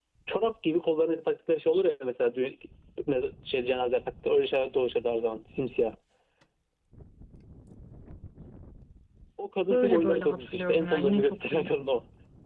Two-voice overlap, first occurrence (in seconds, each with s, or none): 9.7 s